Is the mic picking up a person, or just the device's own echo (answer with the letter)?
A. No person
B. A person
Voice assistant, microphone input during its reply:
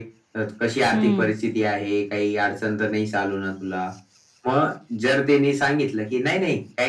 B